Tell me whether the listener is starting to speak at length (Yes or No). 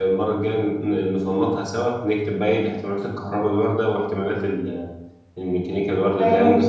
Yes